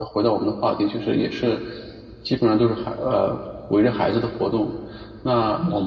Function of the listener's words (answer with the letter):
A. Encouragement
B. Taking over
A